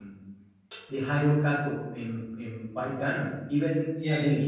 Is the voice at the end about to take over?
Yes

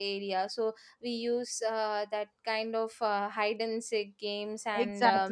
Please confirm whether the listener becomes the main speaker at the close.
Yes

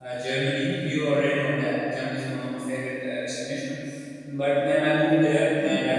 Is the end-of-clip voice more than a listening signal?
No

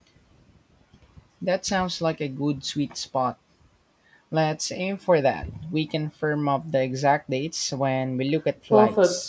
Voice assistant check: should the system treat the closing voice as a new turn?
Yes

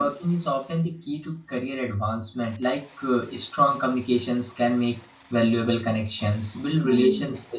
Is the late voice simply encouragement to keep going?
Yes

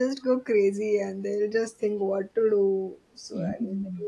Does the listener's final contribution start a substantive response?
Yes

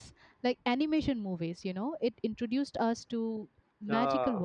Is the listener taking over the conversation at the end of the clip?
No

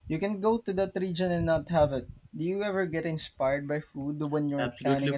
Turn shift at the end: Yes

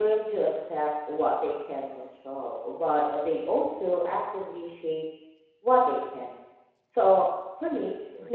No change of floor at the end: Yes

